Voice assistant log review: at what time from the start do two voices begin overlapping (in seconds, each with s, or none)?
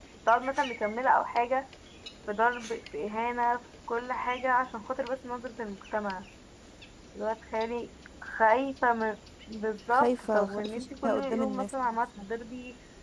9.9 s